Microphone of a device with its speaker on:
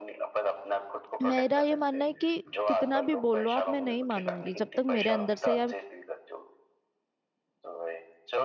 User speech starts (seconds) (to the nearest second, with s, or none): 1 s